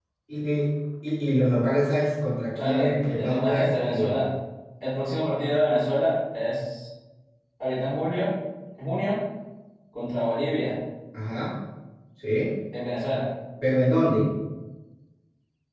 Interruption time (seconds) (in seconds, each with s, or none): 2.6 s